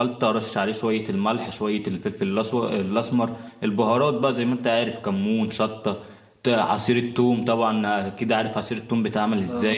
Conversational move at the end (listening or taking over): listening